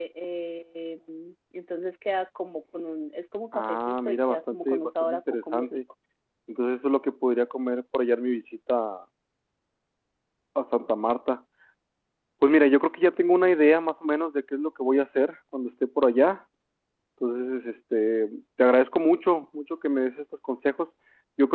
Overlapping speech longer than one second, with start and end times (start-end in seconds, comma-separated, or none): 3.5-5.8